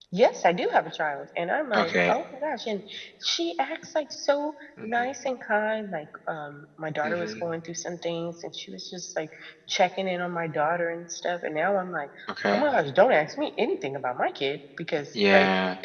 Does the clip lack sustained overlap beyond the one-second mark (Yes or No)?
Yes